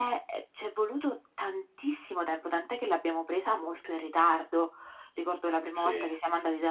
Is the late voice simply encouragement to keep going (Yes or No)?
Yes